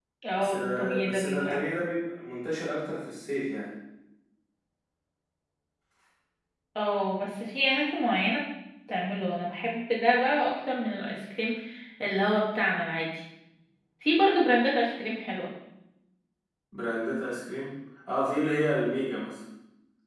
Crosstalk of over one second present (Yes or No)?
Yes